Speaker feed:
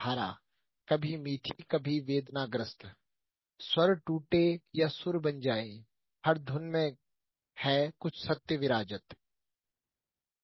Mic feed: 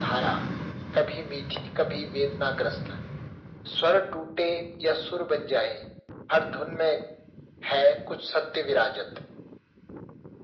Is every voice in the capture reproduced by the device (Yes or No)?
Yes